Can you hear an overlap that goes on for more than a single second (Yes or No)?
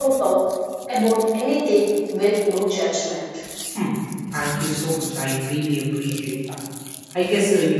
No